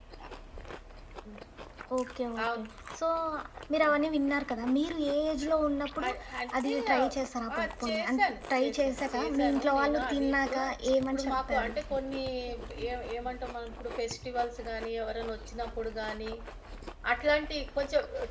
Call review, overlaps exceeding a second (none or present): present